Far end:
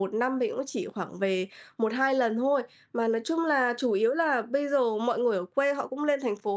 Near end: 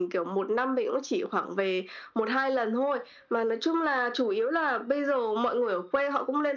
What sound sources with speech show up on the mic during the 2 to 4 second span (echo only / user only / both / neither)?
echo only